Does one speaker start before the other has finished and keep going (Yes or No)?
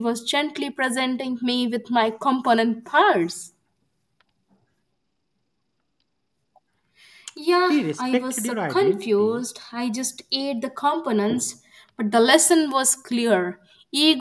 Yes